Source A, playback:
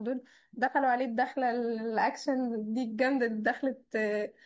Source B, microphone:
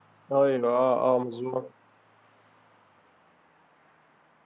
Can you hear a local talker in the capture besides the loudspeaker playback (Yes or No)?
Yes